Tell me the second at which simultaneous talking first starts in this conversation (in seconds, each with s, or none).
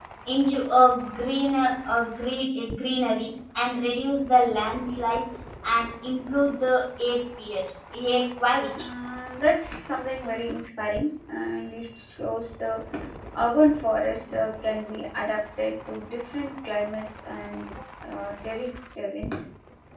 none